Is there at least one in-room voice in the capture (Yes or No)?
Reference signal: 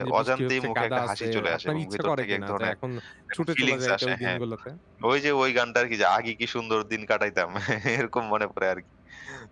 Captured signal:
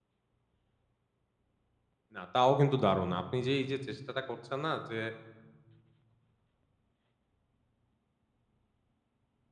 Yes